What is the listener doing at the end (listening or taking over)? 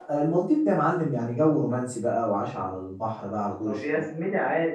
taking over